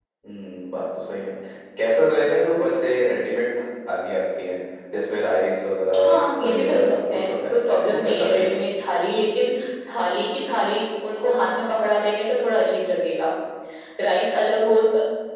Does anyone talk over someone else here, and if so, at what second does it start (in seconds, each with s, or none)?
5.9 s